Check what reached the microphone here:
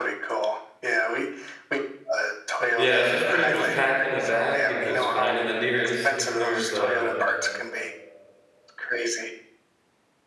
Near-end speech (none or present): present